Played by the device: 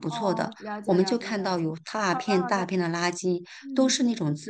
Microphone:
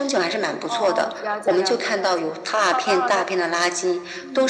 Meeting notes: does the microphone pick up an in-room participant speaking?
No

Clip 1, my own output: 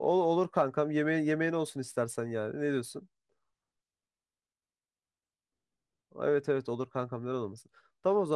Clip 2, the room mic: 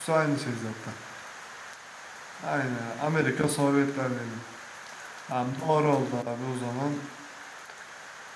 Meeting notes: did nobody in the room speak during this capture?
No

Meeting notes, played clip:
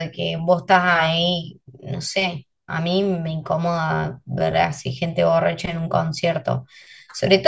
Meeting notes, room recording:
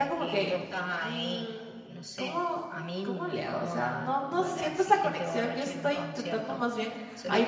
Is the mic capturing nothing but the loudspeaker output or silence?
No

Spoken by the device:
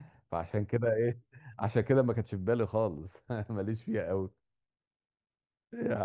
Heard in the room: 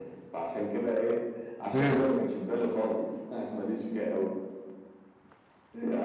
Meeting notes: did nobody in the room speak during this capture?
No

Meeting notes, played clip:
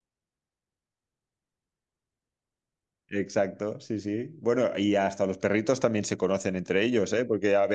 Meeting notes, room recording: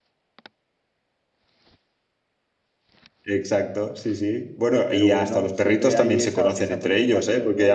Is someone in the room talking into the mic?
Yes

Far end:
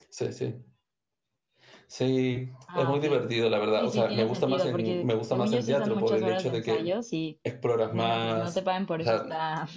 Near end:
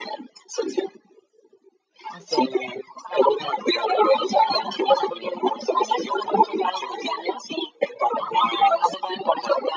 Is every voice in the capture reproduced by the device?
No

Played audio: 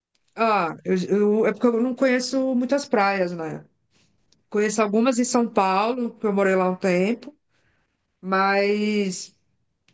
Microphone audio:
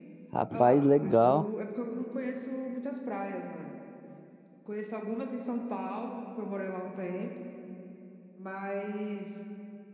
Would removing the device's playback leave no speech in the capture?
No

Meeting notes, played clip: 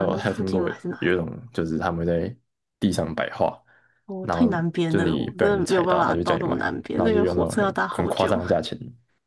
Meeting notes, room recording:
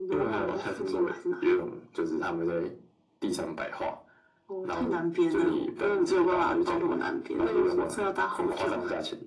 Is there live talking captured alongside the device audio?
No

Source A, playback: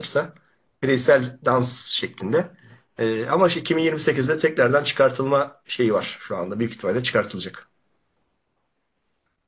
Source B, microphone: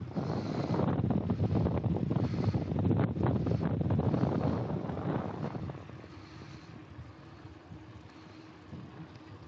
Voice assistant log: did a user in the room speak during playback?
No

